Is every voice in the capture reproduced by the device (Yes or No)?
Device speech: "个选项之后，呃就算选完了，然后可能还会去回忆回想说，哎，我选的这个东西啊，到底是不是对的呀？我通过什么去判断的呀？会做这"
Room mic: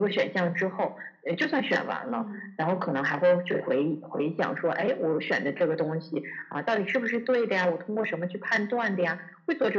No